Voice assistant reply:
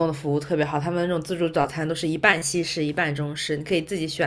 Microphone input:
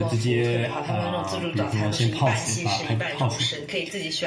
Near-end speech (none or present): present